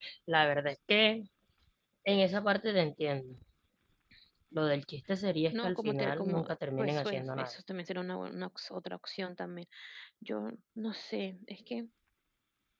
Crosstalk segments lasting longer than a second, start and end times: 5.5-7.5

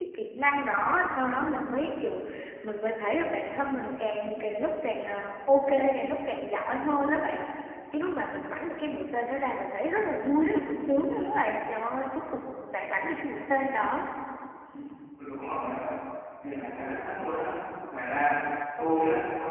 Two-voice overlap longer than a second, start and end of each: none

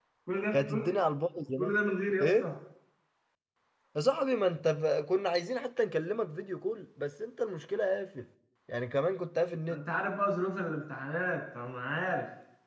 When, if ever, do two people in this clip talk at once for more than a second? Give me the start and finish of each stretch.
none

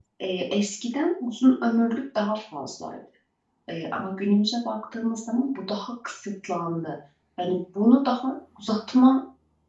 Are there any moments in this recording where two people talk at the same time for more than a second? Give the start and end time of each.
none

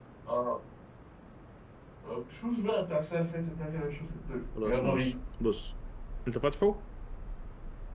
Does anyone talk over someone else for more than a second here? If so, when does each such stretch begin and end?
none

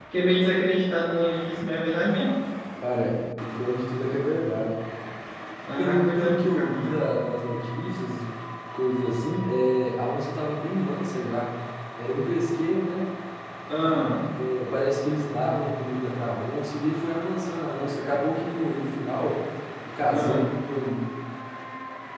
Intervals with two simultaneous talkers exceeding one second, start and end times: 5.7-7.0

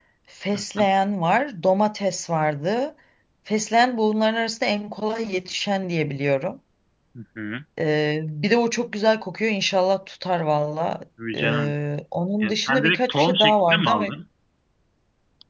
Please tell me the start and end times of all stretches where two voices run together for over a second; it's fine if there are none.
12.4-14.1

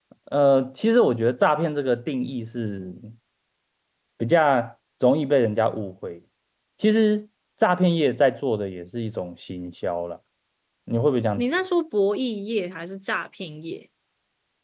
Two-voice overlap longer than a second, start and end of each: none

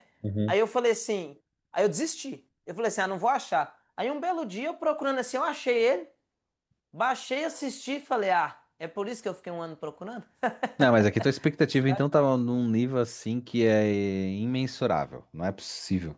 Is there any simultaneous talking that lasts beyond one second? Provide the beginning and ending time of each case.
none

